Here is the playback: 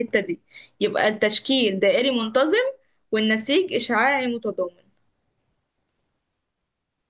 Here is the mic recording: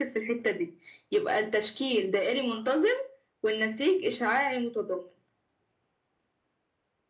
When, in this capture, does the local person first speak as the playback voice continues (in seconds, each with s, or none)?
none